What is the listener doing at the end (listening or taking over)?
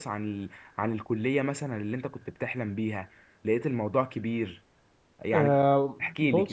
taking over